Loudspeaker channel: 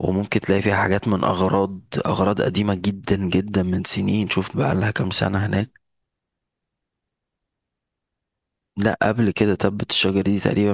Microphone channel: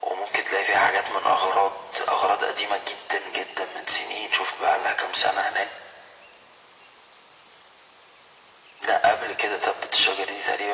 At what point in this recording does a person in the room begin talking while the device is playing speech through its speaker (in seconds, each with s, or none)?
none